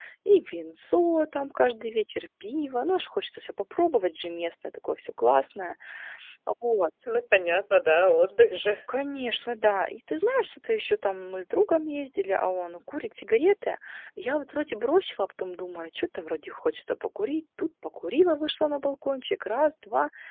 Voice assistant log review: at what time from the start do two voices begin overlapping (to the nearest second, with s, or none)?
none